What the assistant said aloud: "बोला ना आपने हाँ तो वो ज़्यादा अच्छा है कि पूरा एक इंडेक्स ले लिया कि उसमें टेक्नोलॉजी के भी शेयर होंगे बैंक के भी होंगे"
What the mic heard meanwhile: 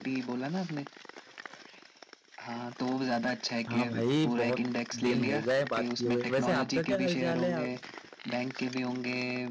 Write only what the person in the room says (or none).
हाँ भाई बहुत दिन हो गए बात किए हुए वैसे आपका क्या हालचाल है आप